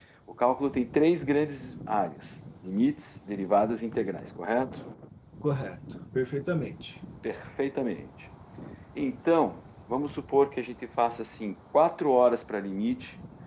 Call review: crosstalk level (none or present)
none